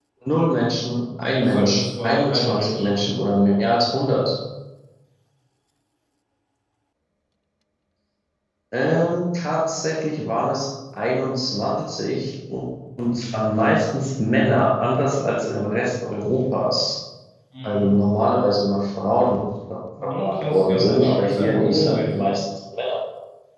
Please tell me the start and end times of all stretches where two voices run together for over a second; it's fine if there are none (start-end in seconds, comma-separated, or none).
1.2-2.9, 20.2-22.1